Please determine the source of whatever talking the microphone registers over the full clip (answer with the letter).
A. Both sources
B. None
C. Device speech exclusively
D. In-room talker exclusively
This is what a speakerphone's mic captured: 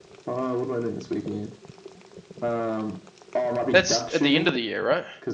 A